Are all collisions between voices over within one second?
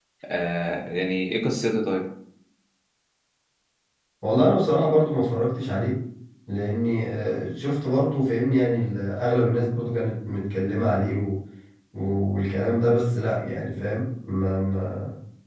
Yes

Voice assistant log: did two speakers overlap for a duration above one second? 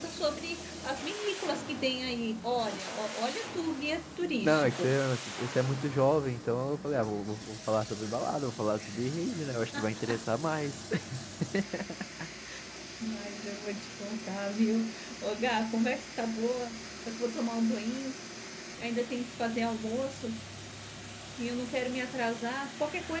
No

